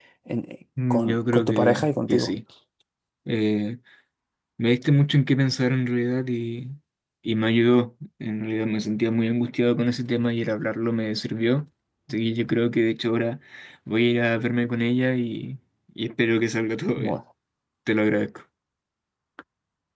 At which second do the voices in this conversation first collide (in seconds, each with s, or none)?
0.9 s